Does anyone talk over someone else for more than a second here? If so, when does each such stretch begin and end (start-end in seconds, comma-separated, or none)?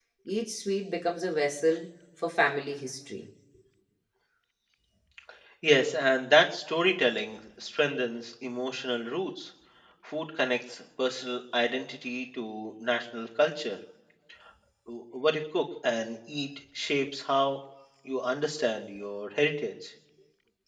none